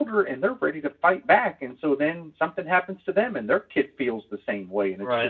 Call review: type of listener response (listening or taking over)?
taking over